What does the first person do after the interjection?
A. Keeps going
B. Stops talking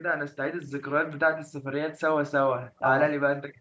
A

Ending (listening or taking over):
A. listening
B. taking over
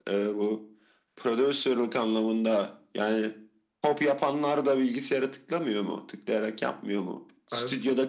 A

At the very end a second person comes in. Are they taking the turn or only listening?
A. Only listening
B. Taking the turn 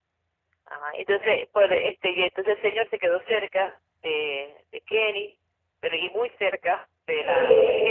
B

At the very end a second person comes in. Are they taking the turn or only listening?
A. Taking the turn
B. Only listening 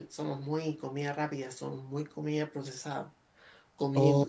A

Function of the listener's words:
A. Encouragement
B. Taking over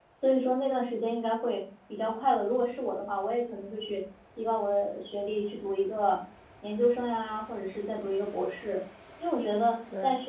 A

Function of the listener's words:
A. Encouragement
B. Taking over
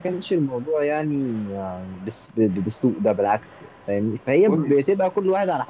A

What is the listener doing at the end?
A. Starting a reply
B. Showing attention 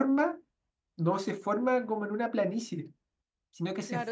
A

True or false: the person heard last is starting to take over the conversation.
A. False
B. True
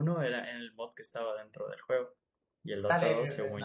B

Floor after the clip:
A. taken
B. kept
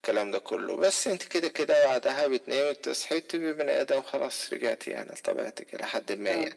B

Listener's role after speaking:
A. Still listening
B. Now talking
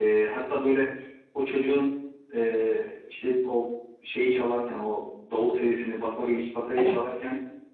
A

